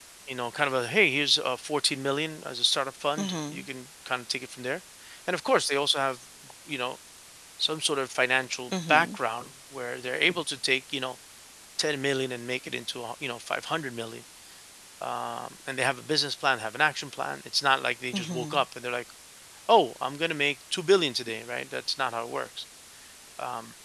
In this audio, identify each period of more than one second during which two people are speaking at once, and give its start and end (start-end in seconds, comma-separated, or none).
none